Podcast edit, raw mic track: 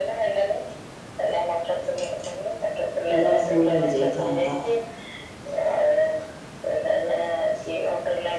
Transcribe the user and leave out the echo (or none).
ପୁରା ଫୁଲ୍ ହେଇଯାଇଥାନ୍ତା।